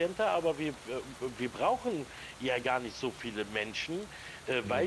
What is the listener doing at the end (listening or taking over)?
listening